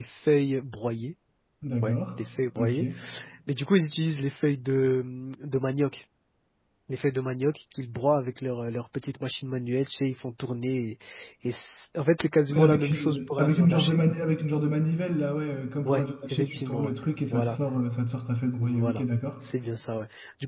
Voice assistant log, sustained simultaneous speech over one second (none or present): present